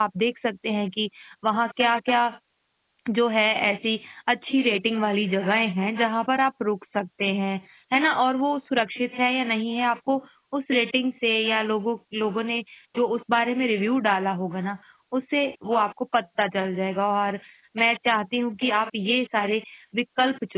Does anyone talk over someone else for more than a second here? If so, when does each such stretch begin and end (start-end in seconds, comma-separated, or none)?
none